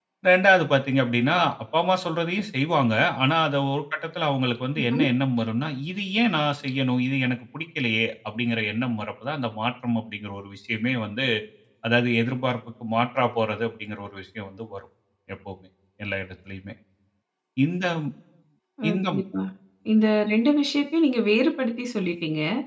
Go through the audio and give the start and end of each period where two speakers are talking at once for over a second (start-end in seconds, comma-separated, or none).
none